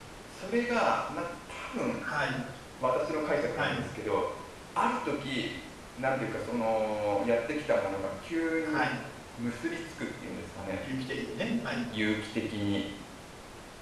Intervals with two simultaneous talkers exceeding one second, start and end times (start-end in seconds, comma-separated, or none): none